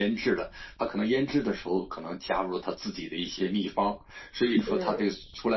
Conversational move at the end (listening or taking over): listening